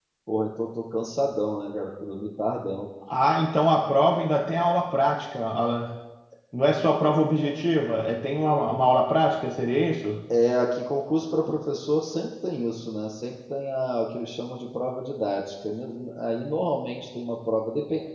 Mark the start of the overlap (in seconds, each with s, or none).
none